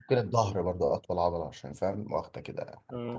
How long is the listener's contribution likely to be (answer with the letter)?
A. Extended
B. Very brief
A